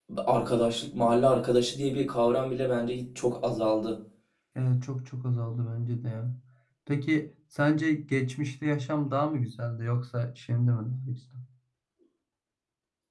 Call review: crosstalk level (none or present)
none